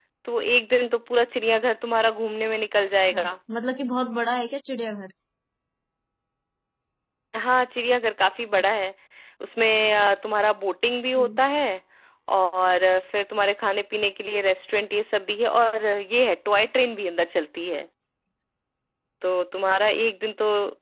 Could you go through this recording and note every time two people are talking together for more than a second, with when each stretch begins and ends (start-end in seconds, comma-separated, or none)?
none